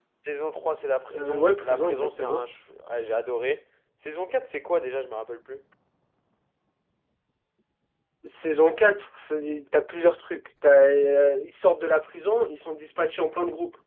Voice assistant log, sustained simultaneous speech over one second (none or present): present